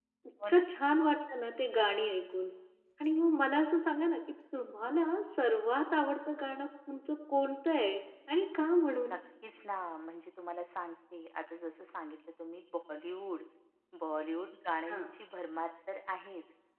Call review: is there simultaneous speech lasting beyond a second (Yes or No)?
No